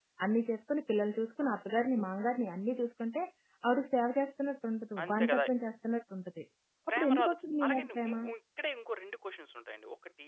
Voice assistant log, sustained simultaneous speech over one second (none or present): present